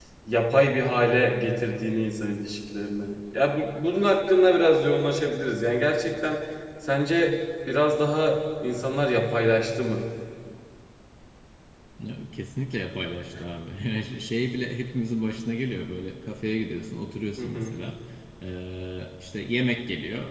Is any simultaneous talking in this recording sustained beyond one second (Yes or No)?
No